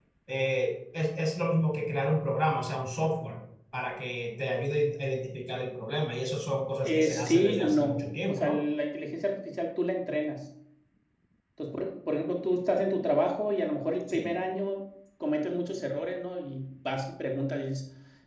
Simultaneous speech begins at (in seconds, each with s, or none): 6.8 s